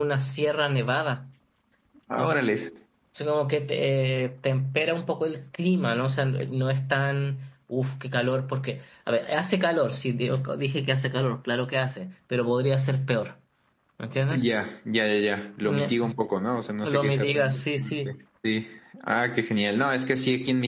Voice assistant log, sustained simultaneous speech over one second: present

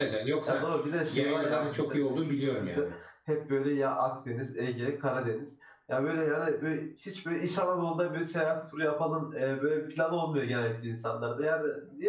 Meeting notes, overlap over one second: present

